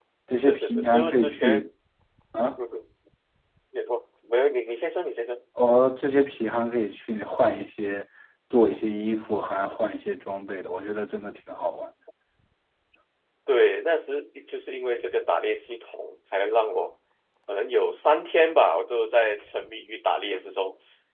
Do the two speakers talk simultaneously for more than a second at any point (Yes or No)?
Yes